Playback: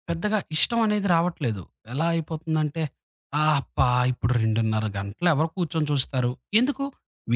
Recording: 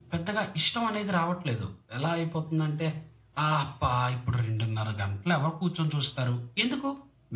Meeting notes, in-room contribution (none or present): none